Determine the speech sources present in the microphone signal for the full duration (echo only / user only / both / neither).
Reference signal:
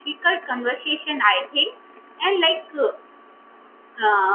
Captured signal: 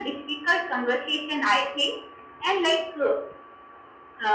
echo only